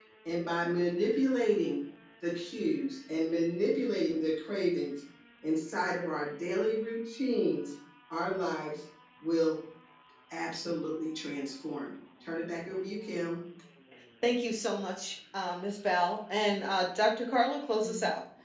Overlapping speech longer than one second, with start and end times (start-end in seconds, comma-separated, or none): none